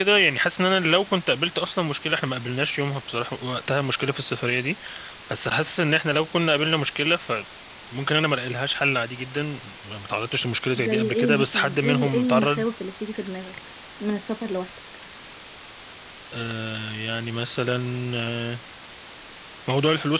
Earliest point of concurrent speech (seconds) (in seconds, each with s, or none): 10.8 s